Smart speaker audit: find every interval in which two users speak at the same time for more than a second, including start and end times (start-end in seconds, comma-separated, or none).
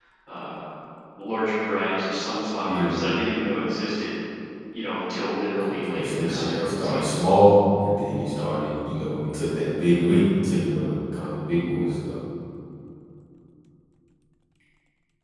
5.9-7.2